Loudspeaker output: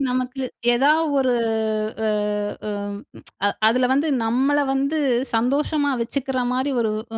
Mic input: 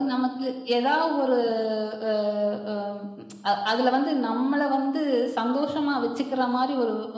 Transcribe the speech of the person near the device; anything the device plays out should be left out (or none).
none